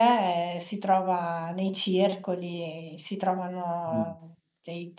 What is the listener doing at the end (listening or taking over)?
listening